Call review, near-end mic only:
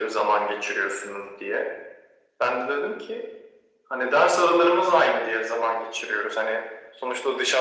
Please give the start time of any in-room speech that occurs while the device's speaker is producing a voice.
none

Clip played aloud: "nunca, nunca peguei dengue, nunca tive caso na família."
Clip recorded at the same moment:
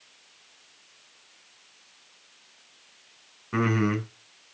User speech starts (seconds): 4 s

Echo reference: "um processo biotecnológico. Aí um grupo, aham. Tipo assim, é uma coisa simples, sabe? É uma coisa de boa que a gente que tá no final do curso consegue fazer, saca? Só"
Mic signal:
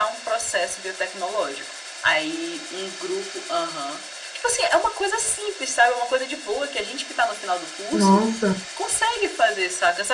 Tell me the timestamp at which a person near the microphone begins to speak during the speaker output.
8 s

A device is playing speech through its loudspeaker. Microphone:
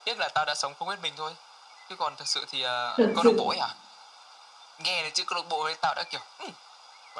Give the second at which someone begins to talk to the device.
3 s

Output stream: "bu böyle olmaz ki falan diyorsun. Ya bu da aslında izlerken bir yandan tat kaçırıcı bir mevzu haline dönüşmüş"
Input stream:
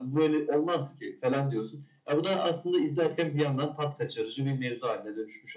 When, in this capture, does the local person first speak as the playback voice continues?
none

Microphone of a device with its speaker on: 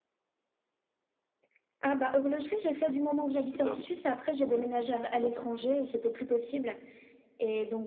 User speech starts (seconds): 3 s

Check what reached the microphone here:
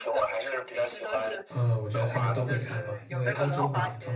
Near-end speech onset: 1 s

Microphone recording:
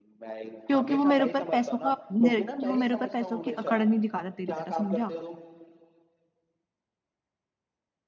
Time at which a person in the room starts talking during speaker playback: 1 s

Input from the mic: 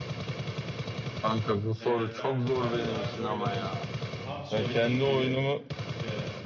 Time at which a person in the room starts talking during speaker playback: 2 s

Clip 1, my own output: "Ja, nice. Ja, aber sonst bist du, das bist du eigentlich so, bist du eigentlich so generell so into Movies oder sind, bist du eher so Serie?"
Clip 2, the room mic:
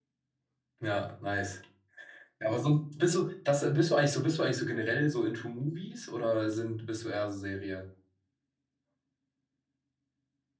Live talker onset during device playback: none

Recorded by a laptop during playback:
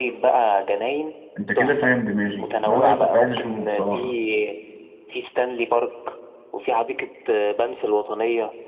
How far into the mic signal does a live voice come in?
1 s

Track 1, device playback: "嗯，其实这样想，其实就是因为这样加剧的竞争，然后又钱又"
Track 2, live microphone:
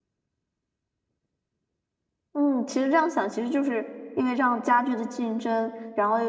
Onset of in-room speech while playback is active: none

